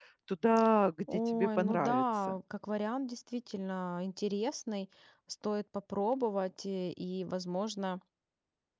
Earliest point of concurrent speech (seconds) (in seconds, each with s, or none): 1.1 s